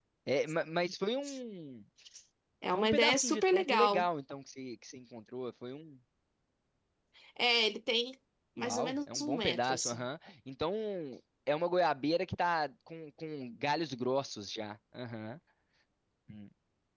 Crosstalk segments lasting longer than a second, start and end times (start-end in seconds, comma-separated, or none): 2.7-4.1, 8.6-10.0